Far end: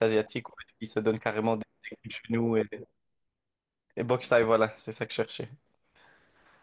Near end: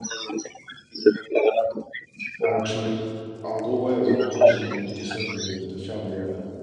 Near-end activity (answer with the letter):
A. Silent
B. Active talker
B